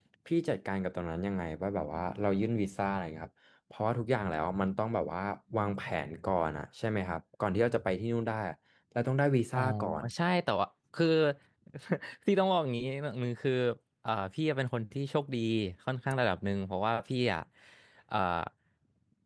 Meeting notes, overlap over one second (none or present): none